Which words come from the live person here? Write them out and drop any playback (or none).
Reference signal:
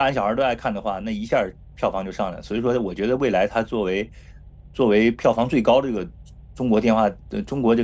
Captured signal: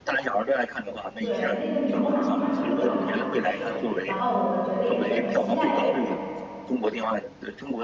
对，那个女龙王长得特别好看，是，然后我觉得也是很期待